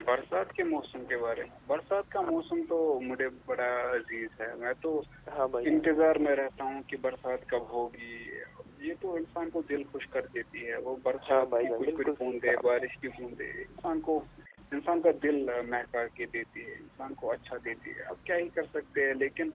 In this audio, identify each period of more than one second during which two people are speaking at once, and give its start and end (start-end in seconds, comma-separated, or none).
11.3-12.8